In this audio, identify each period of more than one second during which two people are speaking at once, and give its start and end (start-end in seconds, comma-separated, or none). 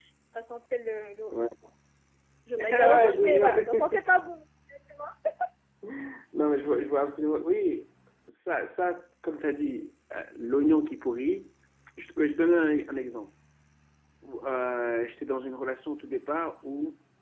2.6-3.9